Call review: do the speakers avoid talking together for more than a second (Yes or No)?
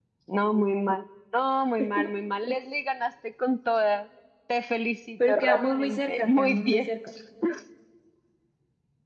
No